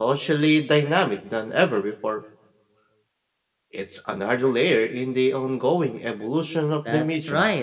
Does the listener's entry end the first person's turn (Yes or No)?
Yes